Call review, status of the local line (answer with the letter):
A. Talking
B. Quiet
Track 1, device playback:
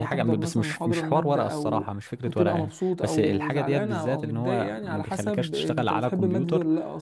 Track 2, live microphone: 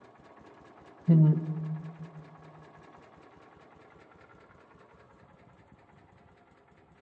A